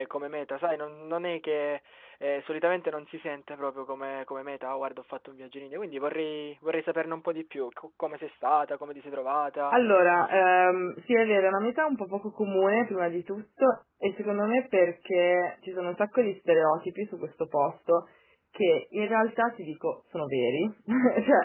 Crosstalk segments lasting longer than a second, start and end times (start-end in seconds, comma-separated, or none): none